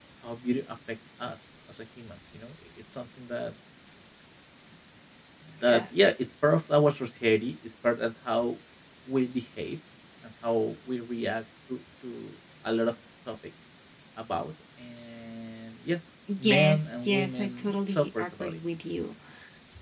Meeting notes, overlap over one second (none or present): present